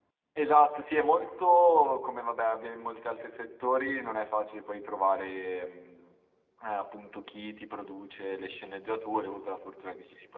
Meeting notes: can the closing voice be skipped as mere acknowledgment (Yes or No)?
Yes